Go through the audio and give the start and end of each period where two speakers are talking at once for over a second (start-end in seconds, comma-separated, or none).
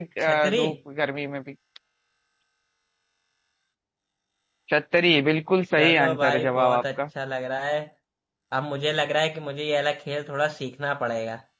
5.7-7.0